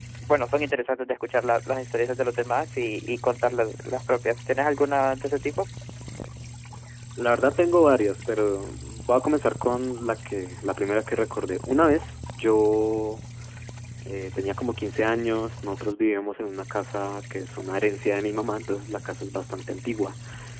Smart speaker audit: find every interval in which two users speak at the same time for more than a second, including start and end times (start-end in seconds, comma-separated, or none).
none